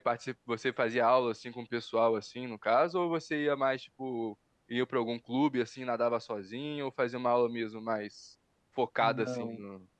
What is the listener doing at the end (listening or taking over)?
taking over